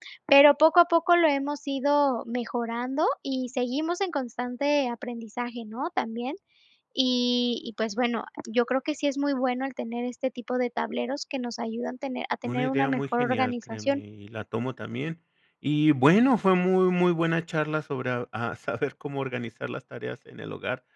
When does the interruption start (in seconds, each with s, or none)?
12.4 s